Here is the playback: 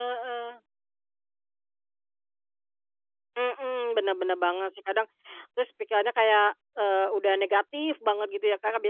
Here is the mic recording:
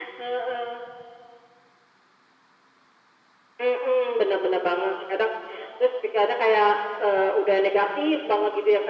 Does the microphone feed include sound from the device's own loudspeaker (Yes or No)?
Yes